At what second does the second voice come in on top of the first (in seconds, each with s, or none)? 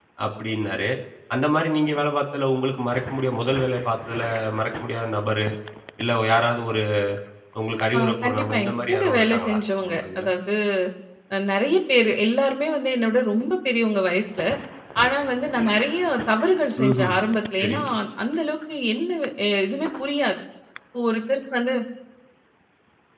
8.0 s